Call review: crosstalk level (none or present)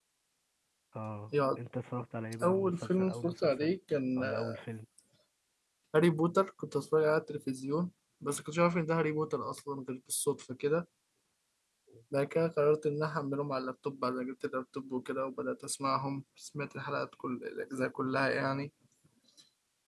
present